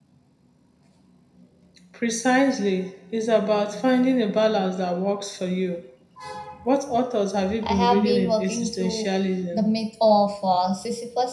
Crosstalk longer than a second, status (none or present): present